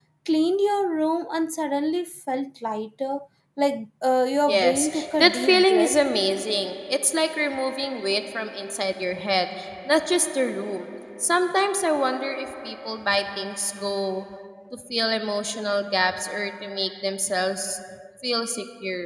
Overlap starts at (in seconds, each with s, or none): 4.5 s